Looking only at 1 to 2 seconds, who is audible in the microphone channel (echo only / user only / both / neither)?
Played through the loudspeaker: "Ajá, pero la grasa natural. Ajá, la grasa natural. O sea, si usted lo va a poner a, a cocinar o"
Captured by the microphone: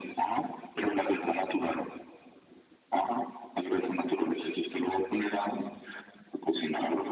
echo only